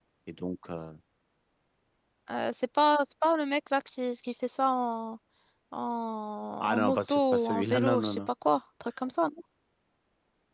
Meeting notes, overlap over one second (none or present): present